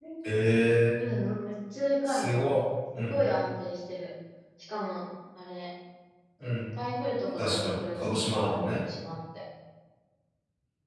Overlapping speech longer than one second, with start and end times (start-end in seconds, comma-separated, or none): 7.4-8.8